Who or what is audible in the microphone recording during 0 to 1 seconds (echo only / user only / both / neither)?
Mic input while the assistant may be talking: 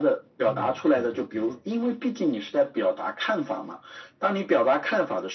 both